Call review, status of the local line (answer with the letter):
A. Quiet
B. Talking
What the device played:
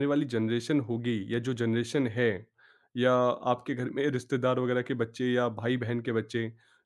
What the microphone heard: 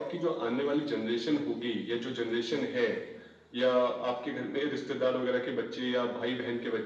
A